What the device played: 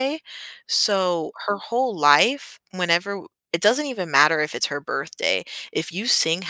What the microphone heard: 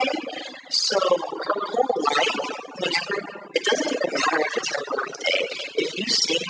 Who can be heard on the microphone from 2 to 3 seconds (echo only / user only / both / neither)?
echo only